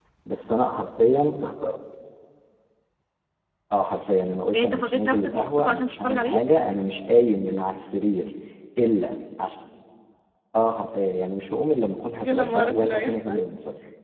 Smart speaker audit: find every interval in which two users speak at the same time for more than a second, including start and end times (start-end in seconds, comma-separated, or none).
4.5-6.4, 12.2-13.4